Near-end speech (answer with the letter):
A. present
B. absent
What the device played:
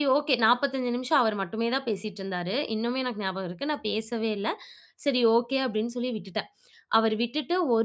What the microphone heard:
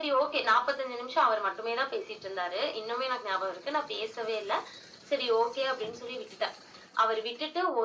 B